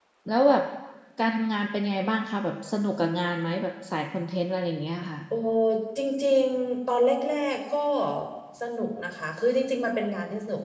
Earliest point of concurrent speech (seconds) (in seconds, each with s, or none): none